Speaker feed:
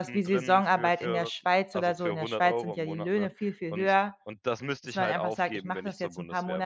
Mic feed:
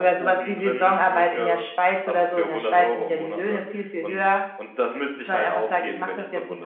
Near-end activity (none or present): none